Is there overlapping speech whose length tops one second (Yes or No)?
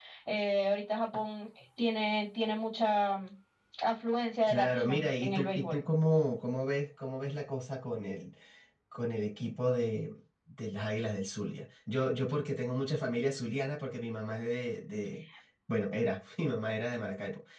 Yes